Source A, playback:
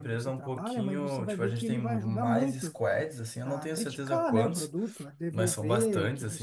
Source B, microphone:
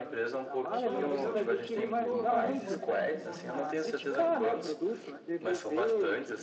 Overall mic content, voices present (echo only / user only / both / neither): both